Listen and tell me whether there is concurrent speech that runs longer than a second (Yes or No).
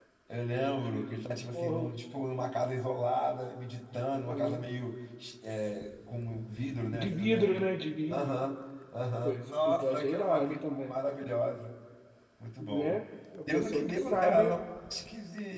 Yes